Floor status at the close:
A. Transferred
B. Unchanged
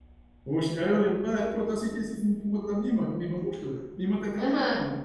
A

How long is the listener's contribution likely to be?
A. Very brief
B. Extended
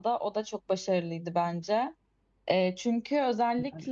A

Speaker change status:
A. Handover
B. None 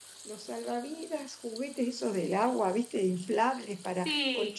B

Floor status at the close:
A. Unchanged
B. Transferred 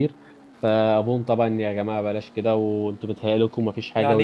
B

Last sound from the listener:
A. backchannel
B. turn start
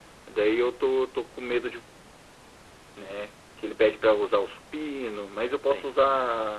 A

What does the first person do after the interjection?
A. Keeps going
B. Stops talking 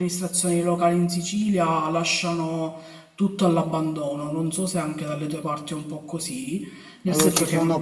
B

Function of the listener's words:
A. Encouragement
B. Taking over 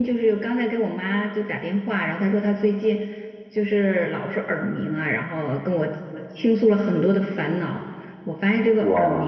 A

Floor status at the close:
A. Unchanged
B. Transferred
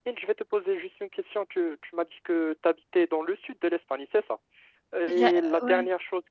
A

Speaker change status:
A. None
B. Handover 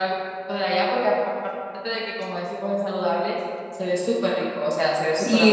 B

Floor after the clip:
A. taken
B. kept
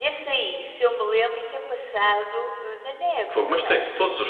A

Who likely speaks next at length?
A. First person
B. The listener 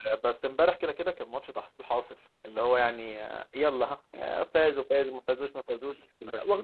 B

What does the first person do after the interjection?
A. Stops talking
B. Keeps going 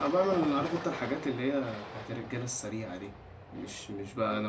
B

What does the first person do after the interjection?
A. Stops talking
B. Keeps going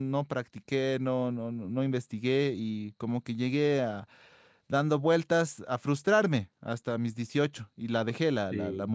B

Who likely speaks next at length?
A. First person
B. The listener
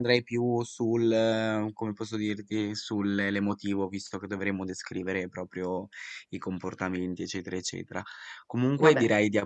A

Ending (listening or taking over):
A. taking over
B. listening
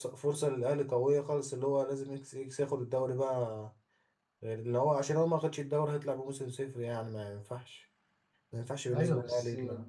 A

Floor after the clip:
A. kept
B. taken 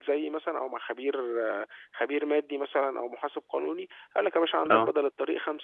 A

